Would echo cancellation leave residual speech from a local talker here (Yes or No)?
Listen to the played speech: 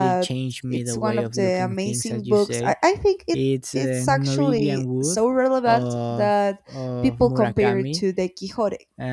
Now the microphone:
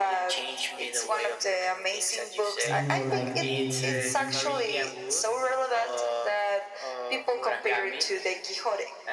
Yes